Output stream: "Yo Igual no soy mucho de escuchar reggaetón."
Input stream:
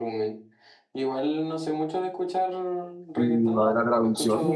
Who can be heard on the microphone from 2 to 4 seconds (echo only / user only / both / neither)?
both